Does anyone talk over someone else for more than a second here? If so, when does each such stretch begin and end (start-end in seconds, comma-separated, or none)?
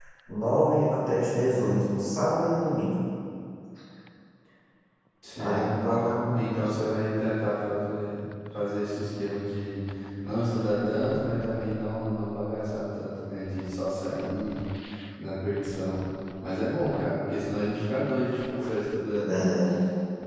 none